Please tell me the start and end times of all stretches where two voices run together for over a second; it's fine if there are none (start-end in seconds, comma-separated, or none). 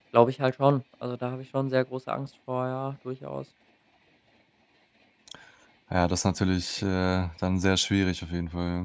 none